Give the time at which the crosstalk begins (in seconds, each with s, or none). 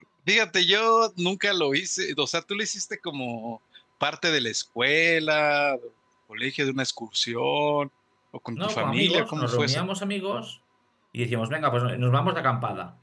8.6 s